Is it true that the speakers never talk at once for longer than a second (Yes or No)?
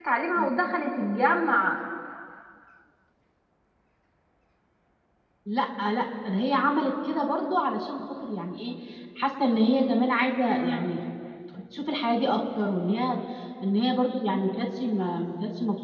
Yes